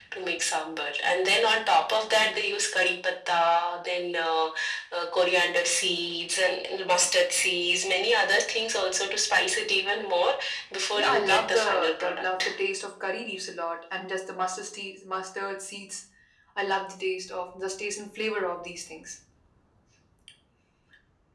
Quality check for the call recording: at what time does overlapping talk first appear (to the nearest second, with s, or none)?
11 s